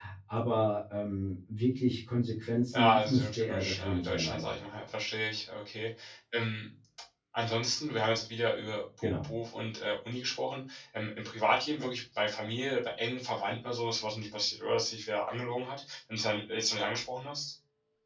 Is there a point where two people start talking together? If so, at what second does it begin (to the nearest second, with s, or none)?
3 s